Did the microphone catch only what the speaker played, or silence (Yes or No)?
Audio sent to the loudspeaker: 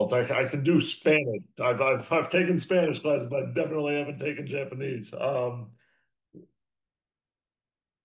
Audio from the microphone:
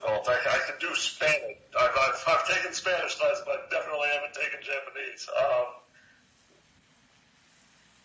Yes